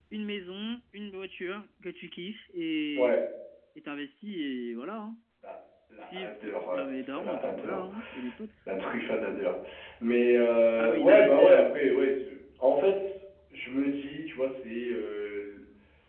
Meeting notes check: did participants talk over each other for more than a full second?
Yes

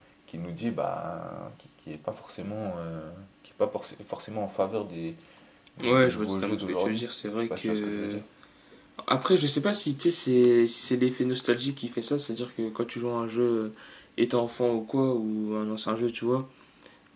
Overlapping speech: Yes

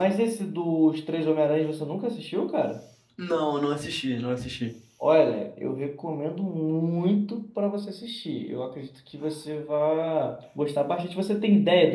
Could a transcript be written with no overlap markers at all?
Yes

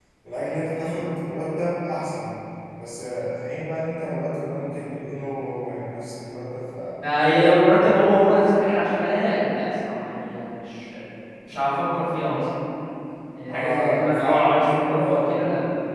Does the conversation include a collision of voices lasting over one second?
Yes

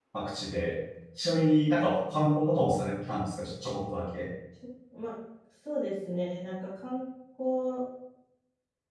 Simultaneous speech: No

